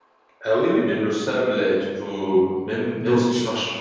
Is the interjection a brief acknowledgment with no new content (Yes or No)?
Yes